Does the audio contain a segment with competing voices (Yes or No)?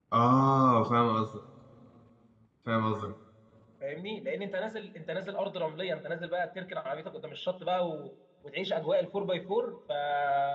No